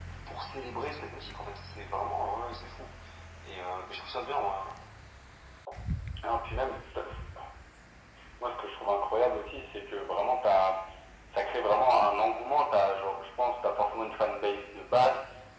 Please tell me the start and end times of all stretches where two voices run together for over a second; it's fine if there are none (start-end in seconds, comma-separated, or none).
none